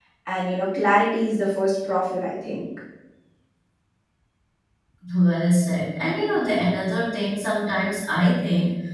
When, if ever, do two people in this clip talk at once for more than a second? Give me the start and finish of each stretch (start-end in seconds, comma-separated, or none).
none